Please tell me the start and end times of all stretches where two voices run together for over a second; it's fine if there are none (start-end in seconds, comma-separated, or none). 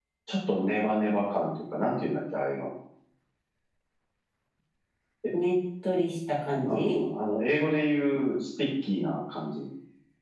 none